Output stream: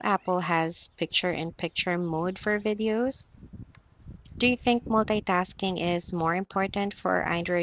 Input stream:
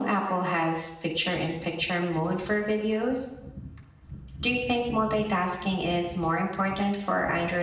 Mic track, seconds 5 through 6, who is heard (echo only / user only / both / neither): echo only